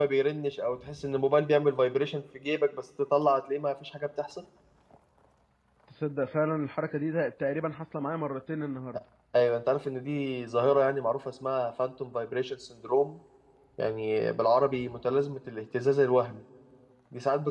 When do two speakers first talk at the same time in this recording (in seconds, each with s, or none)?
none